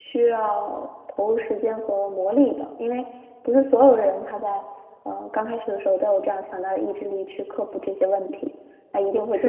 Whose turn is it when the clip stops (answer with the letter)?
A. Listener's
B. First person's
A